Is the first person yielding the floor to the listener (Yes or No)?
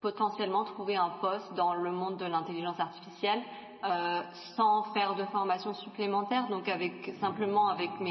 No